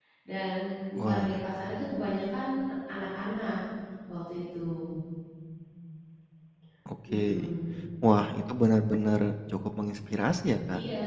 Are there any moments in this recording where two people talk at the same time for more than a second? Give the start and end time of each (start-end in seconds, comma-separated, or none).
none